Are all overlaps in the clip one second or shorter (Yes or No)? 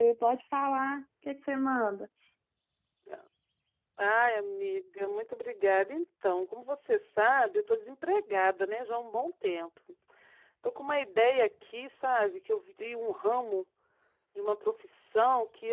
Yes